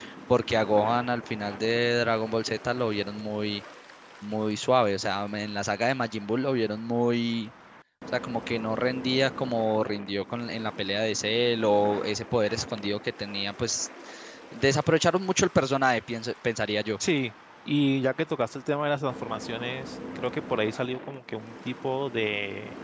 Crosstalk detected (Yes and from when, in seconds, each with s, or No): No